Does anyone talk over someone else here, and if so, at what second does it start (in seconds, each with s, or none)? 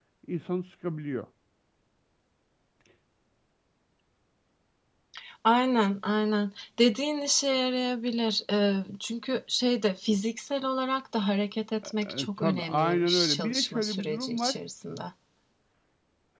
11.8 s